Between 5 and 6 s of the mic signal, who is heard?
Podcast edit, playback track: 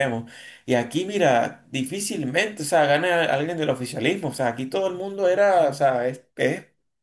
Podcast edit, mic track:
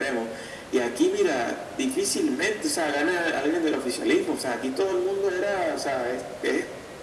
echo only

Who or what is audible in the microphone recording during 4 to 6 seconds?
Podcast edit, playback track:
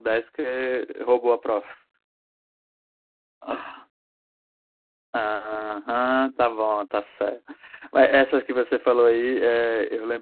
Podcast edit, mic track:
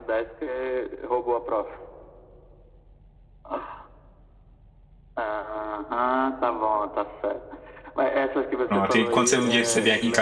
echo only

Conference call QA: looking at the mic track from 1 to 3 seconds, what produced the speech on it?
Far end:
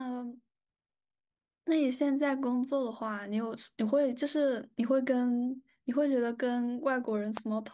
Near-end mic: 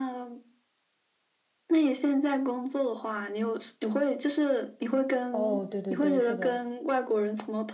echo only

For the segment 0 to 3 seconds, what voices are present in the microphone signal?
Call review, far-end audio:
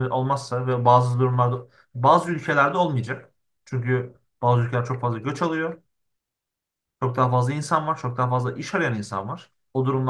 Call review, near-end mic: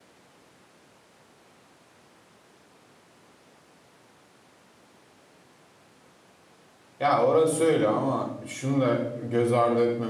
neither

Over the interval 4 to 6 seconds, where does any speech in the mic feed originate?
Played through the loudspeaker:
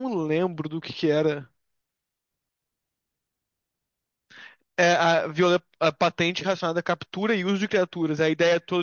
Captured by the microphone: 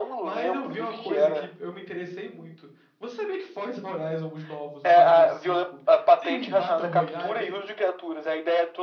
both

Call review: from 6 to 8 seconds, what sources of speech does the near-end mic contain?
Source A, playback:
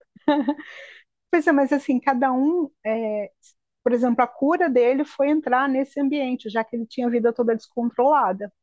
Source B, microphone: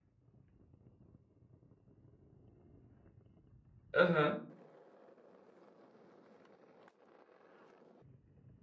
neither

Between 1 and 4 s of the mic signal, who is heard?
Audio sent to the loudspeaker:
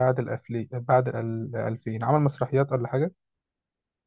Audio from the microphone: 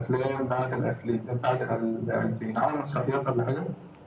echo only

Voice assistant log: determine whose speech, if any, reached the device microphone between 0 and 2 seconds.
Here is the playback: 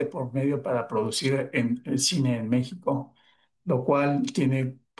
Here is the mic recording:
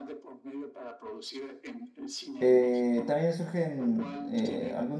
echo only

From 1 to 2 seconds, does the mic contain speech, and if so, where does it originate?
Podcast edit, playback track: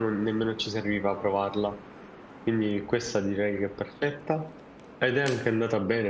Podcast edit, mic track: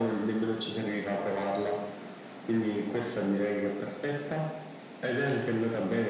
echo only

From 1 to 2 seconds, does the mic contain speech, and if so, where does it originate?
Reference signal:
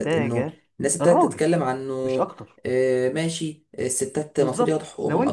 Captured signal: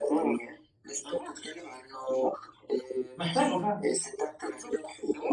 echo only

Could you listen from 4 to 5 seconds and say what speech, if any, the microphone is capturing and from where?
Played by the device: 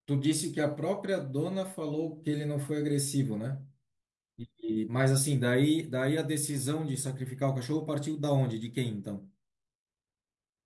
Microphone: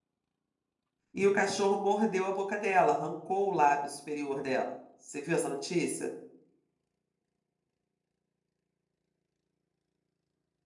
user only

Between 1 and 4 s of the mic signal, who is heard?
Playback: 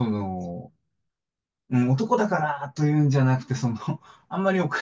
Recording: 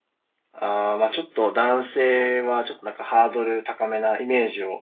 user only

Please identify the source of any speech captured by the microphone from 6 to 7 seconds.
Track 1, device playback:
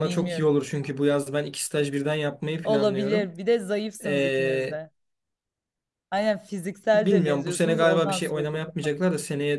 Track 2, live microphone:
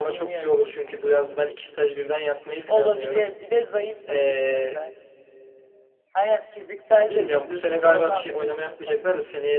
echo only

